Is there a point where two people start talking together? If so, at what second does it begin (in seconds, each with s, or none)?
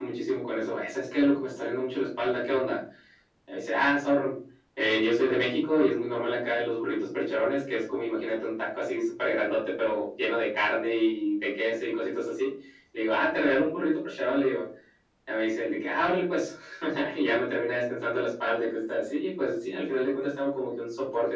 none